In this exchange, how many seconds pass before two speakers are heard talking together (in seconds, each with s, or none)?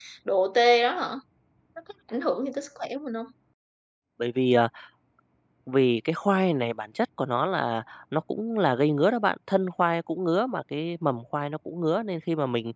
none